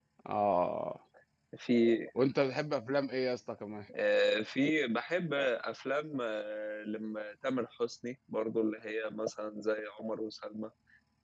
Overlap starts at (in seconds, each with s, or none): none